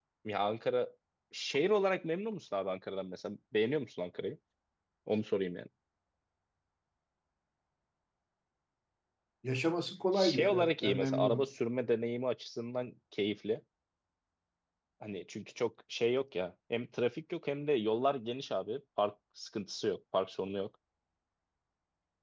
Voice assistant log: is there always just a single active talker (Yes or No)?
No